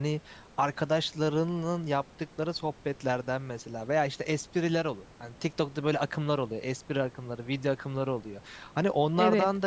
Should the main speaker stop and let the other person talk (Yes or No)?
No